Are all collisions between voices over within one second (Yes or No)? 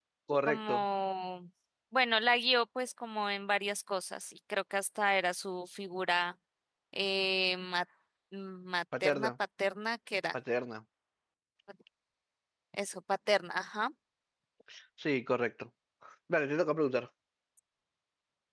Yes